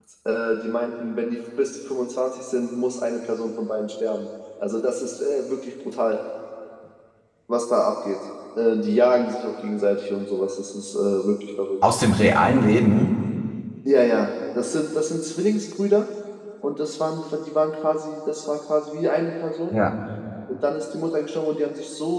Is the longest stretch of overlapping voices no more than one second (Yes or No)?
Yes